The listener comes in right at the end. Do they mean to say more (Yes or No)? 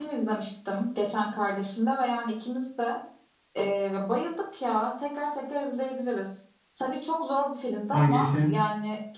No